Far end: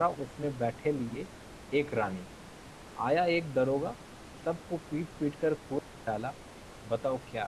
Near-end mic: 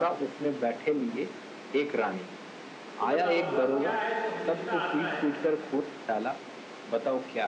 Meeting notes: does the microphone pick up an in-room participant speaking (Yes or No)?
Yes